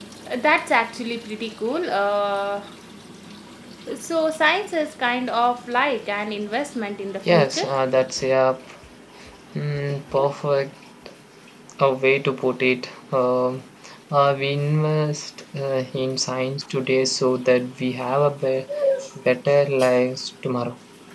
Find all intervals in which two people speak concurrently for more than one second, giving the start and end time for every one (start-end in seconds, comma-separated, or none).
none